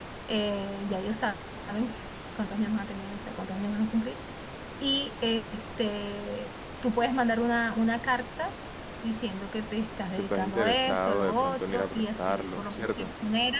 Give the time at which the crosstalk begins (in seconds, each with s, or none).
10.2 s